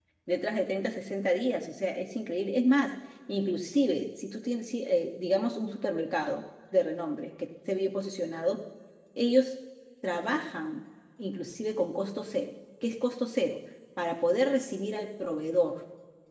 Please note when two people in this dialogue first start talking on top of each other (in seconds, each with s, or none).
none